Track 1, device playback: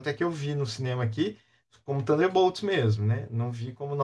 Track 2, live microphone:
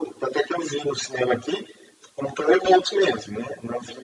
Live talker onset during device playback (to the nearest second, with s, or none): none